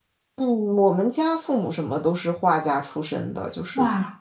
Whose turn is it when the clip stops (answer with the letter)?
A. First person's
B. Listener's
A